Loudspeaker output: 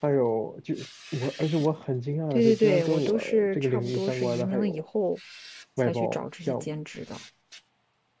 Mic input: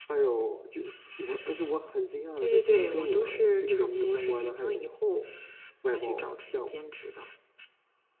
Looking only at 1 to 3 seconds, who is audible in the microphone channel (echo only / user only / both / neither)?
echo only